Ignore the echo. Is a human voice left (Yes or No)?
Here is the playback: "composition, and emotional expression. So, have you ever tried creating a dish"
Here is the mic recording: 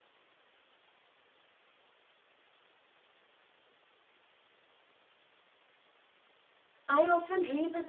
Yes